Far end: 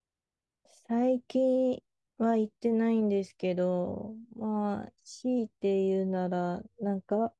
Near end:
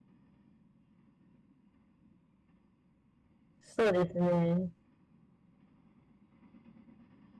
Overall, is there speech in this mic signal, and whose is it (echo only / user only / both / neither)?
user only